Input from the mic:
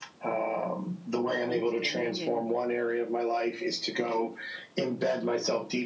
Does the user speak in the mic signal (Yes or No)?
Yes